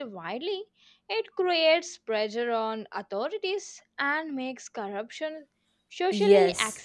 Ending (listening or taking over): taking over